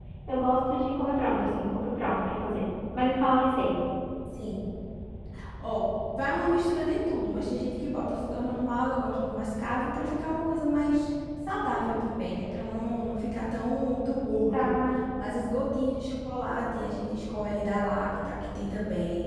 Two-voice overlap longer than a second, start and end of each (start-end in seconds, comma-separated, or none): none